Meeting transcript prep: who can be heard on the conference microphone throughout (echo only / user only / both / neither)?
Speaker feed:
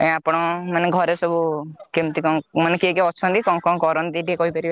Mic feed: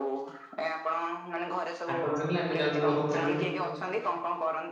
both